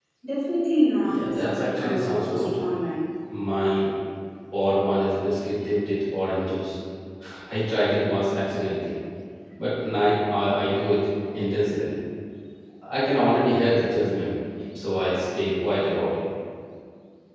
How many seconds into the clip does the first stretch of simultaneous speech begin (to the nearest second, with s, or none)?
1 s